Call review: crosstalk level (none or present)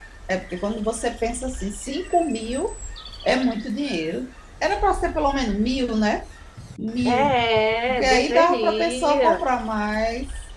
present